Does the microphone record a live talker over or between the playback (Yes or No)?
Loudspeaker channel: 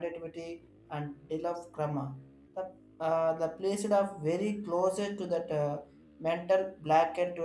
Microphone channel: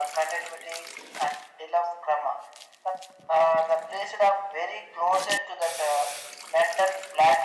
No